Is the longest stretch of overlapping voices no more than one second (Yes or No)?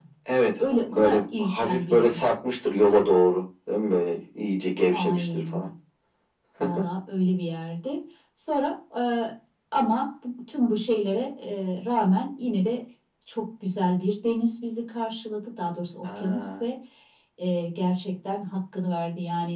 No